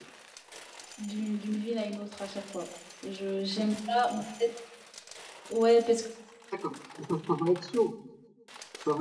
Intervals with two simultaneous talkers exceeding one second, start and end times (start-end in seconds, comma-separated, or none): none